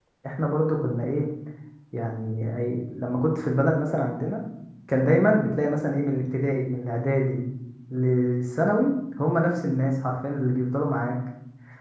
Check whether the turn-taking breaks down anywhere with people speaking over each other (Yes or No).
No